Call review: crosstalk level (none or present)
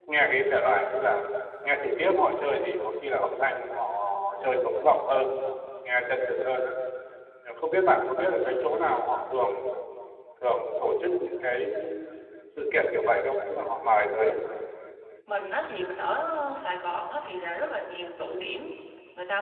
none